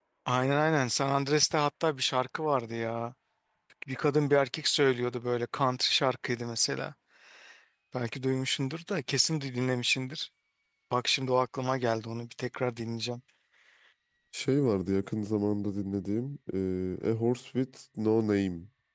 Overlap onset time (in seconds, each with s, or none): none